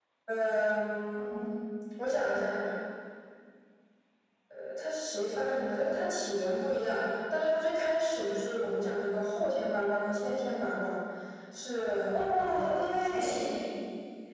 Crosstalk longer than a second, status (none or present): present